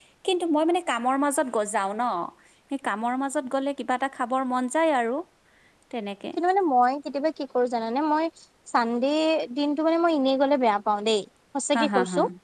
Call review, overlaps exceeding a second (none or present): none